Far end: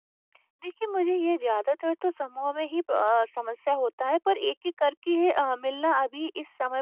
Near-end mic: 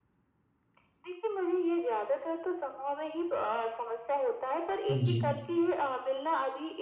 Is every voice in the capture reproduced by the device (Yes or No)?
No